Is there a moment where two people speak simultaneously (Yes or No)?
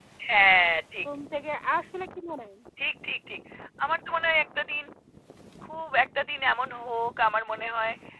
No